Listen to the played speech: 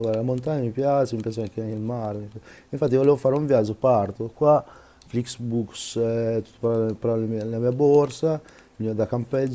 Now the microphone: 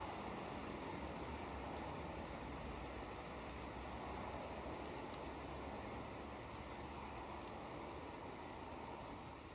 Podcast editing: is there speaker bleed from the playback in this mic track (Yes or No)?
No